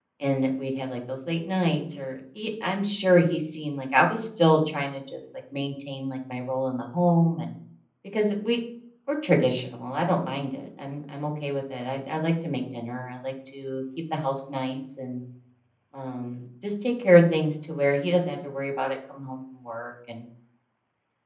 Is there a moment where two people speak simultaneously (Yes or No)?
No